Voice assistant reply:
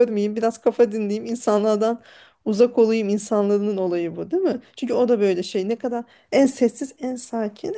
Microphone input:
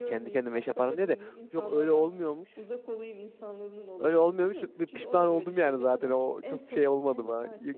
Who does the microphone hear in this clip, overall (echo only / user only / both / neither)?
both